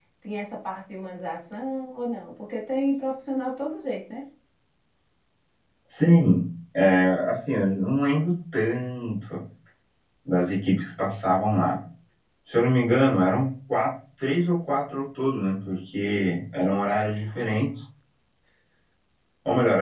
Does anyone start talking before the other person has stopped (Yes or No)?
No